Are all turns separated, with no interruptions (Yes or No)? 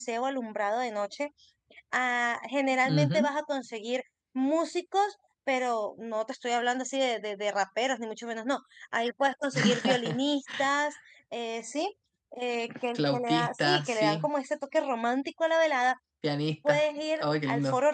No